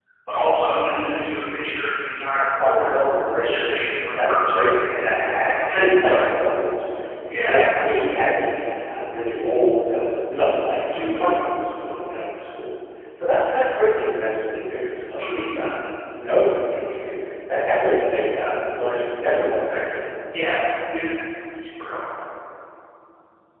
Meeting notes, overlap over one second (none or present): present